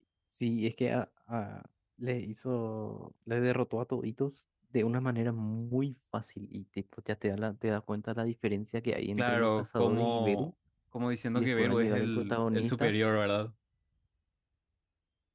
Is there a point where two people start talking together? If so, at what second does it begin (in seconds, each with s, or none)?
9.2 s